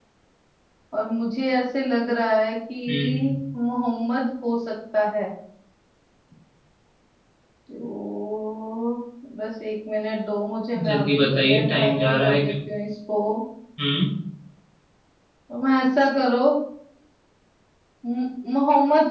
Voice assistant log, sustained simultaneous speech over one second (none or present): present